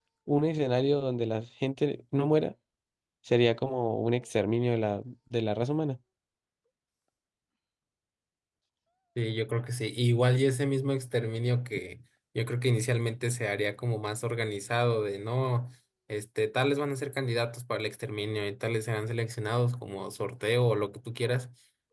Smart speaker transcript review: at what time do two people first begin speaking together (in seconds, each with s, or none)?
none